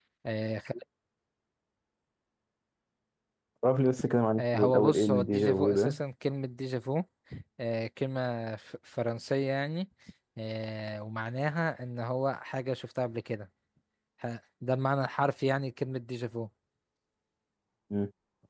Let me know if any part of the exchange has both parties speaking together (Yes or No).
Yes